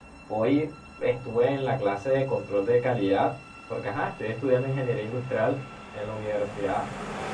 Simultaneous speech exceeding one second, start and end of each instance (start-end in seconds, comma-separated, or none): none